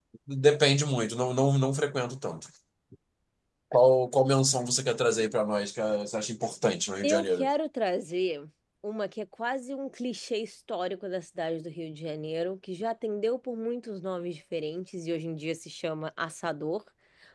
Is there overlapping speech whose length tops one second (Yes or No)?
No